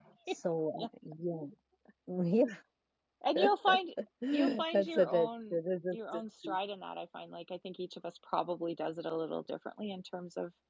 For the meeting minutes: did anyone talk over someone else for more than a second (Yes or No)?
Yes